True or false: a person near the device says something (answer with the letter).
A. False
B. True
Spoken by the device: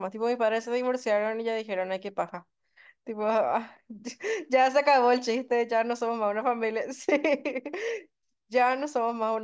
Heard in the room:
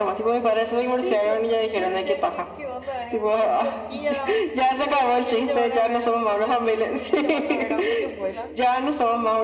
B